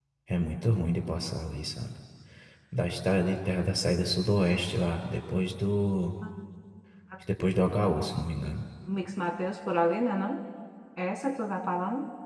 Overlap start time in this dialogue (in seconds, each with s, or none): none